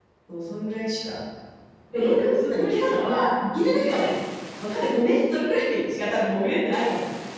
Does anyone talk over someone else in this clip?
Yes, from 1.9 s

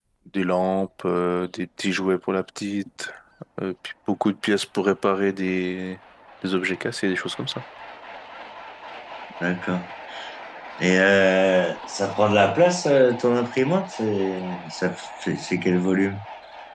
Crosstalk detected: No

